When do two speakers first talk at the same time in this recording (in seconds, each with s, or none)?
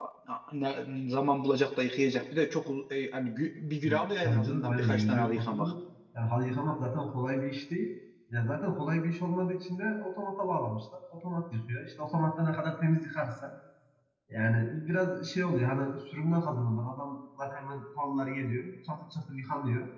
3.8 s